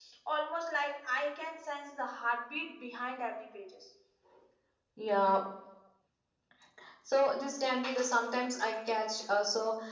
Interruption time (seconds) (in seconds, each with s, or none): none